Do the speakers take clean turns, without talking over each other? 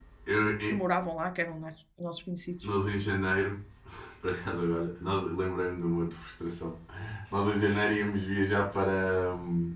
Yes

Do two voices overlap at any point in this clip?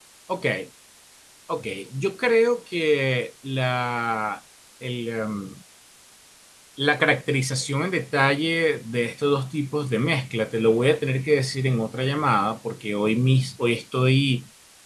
No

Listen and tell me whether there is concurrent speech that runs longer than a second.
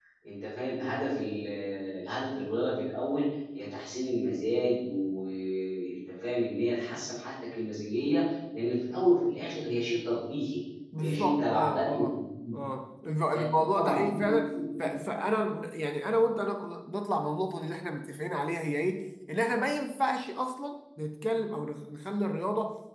Yes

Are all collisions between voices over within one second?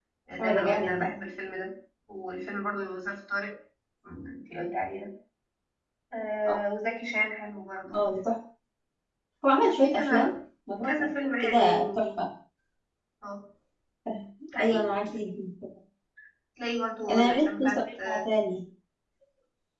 No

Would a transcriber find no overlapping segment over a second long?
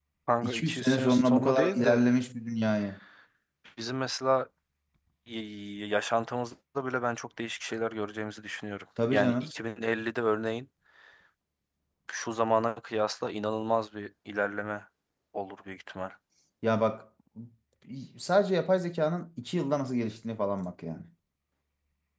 No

